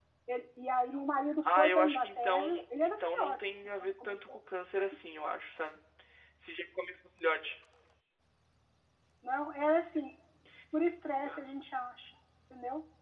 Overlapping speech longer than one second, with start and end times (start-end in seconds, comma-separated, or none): 1.4-4.2